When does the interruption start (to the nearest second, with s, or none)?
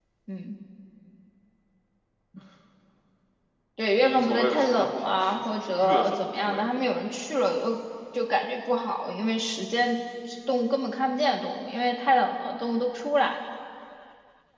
4 s